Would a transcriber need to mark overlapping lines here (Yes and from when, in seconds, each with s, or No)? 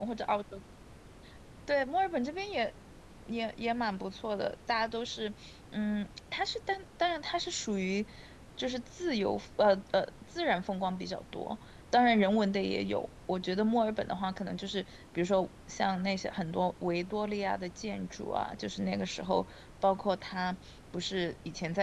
No